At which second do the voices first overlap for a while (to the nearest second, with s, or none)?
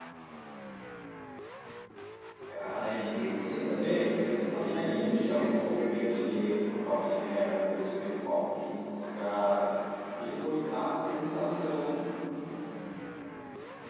3 s